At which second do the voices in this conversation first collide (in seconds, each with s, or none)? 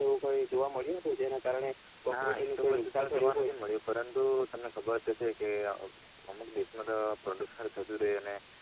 2.1 s